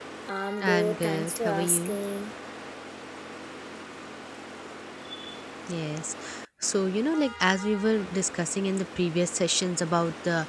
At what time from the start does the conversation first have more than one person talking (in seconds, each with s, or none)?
0.6 s